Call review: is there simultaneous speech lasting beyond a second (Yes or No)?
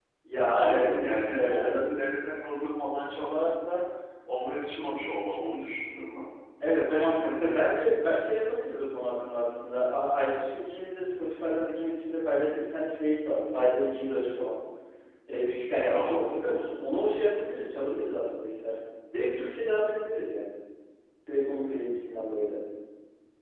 Yes